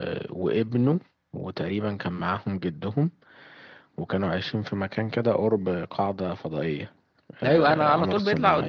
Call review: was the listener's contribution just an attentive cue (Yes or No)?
No